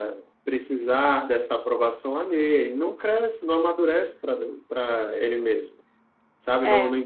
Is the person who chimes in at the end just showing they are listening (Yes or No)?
Yes